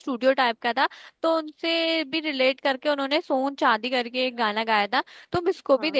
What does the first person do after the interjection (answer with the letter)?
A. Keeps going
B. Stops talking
A